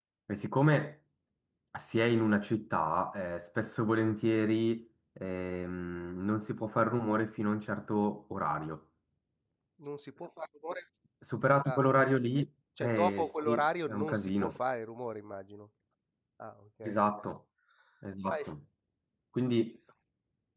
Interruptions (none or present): present